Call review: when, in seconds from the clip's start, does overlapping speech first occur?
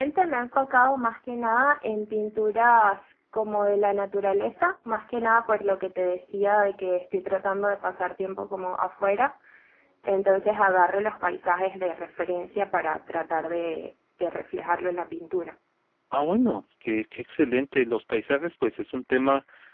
none

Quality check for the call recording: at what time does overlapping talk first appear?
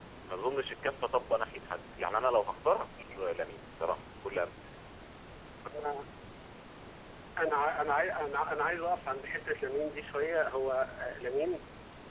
none

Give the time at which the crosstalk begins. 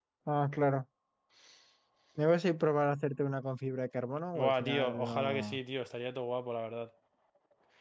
4 s

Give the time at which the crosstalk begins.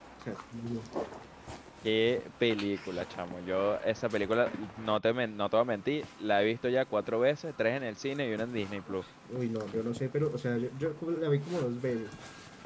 none

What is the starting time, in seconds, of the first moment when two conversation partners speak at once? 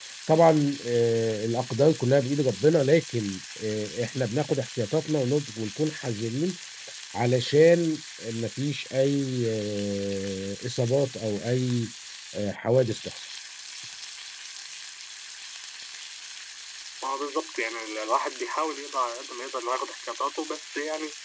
none

